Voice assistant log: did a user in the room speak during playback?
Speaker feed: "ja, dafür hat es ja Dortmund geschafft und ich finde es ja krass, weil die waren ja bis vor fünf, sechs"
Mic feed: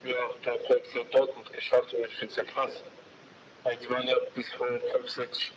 No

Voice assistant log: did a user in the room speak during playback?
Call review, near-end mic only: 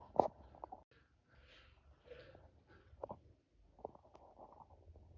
No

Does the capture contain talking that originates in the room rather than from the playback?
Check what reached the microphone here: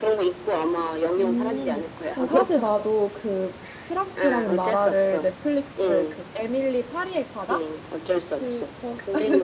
Yes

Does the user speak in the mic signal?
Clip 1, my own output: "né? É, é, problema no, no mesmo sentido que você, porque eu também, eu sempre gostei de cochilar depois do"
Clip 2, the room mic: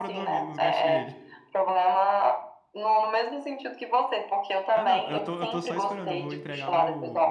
Yes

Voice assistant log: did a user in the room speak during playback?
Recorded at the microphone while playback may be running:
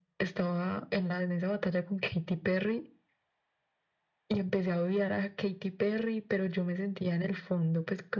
No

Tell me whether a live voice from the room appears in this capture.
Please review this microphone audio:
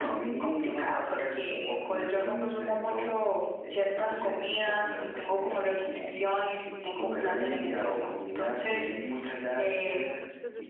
Yes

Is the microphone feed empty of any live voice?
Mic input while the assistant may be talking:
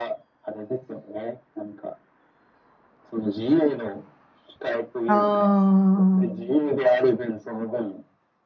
No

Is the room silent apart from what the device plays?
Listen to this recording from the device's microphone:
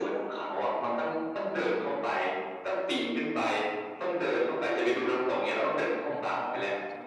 No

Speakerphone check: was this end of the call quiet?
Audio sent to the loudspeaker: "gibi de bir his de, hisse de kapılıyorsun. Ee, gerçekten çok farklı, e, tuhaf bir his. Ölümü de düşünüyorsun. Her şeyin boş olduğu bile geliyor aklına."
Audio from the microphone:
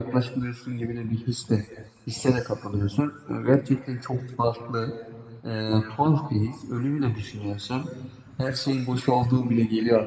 Yes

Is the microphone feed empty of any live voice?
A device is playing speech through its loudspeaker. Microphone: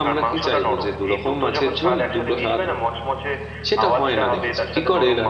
No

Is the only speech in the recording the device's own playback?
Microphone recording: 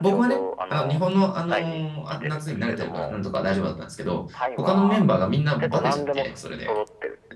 No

